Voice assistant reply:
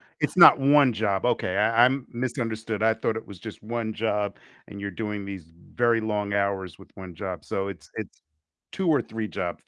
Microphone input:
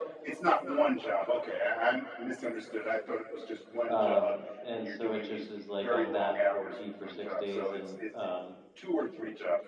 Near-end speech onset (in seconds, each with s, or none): 3.9 s